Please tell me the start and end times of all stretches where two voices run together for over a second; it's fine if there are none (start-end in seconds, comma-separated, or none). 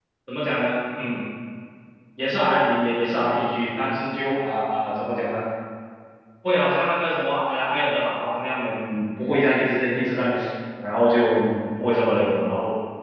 none